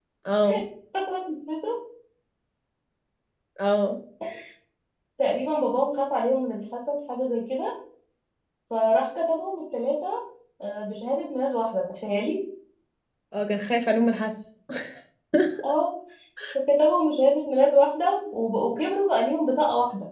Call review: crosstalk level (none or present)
none